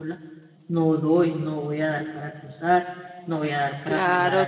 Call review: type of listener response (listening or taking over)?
taking over